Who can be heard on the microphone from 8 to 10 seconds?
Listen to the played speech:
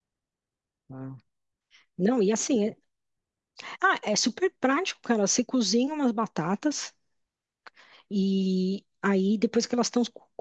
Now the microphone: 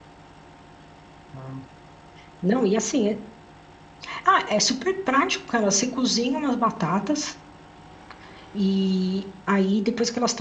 echo only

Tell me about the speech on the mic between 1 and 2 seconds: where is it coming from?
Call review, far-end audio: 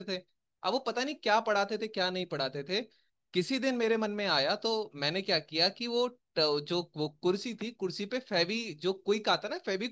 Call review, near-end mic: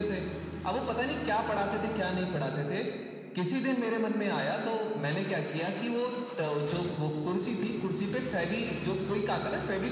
echo only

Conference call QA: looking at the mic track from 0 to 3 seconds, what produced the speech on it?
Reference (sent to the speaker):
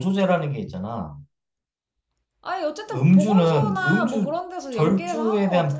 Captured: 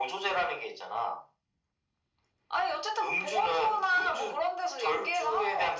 echo only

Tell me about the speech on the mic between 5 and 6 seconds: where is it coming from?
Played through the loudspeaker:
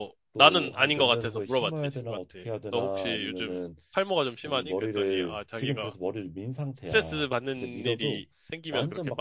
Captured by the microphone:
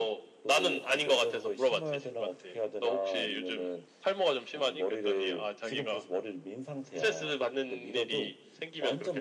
echo only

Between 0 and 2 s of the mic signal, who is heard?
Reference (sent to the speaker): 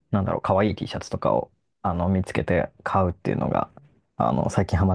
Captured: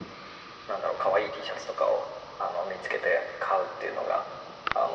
echo only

